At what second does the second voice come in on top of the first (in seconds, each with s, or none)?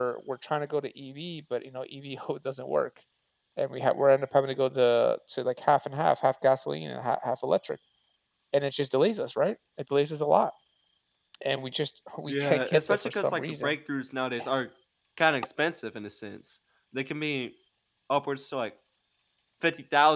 12.3 s